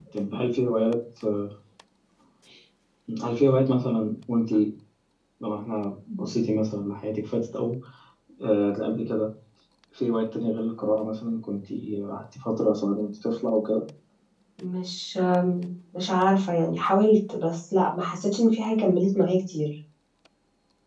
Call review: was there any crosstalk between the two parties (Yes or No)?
No